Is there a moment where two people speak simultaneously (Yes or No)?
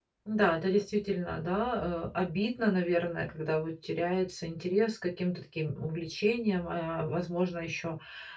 No